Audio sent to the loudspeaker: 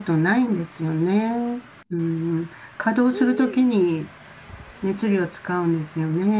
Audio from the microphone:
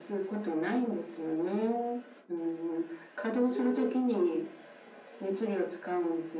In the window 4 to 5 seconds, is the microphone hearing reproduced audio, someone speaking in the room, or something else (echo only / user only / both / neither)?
echo only